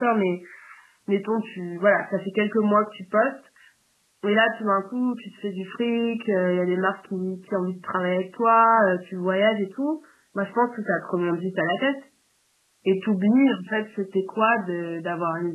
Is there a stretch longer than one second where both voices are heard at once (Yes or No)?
No